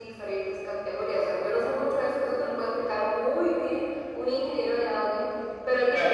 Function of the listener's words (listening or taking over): taking over